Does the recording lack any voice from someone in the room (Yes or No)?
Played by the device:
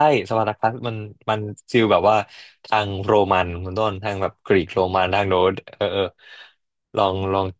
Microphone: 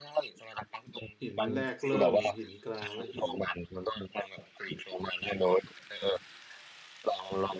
No